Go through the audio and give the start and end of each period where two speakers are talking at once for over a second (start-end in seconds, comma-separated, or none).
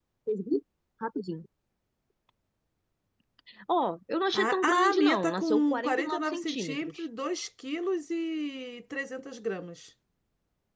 4.3-7.0